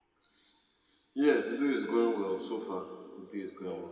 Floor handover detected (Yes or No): No